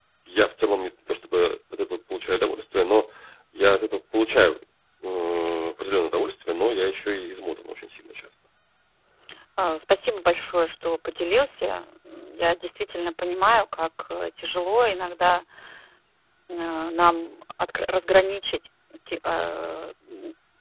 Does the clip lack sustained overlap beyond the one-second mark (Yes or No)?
Yes